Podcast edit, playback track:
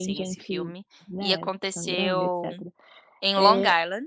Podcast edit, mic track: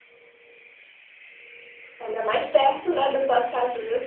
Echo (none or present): none